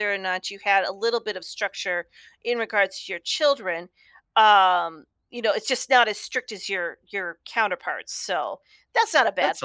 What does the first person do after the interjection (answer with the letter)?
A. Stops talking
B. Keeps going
A